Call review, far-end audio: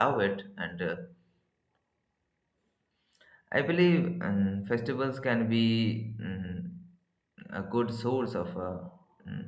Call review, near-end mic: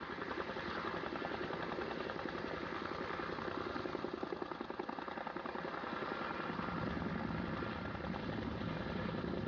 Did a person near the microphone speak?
No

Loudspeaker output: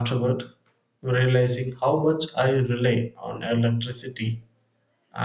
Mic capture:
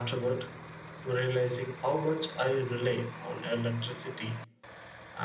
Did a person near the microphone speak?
No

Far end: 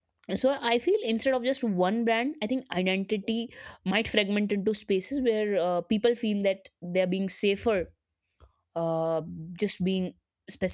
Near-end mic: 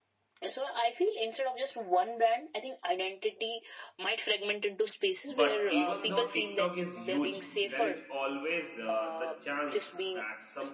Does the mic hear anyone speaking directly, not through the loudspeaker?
Yes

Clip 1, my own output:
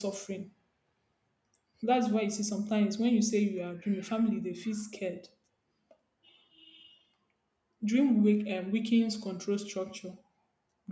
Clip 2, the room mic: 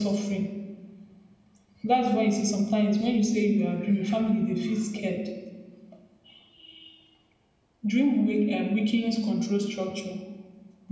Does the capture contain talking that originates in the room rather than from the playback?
No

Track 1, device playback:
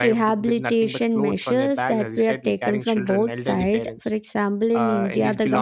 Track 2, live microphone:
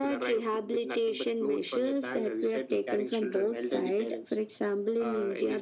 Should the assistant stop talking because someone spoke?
No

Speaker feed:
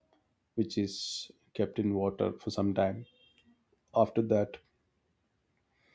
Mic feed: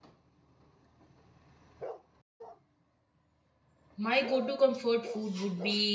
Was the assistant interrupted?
Yes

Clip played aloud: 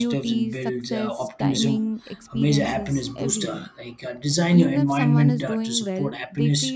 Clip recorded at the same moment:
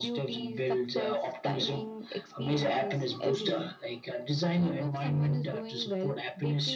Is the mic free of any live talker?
Yes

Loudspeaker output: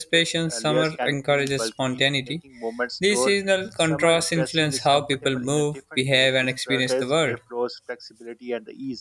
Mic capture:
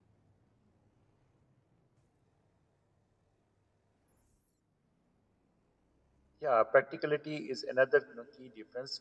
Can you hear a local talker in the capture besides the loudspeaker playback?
Yes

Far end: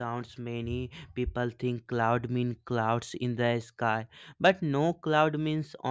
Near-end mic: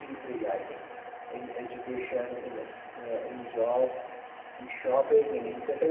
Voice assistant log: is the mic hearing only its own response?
No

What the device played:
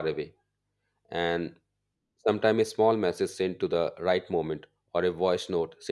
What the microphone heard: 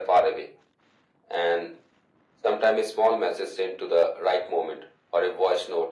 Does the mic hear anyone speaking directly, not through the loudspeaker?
No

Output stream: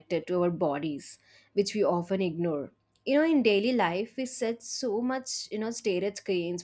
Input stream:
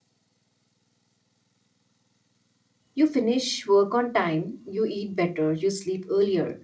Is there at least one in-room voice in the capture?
Yes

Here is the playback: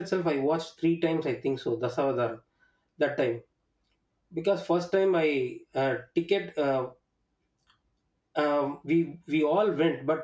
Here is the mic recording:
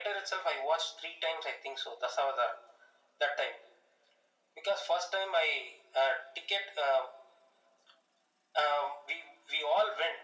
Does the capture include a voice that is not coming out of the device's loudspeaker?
No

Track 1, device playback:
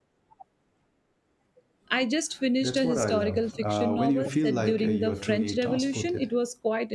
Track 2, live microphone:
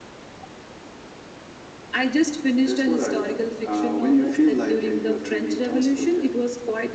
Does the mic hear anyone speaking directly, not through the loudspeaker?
No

